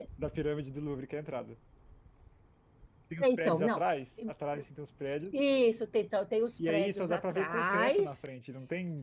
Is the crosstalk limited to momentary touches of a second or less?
No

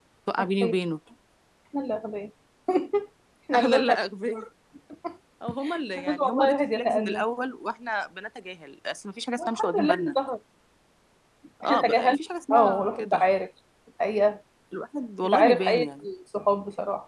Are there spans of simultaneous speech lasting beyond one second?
Yes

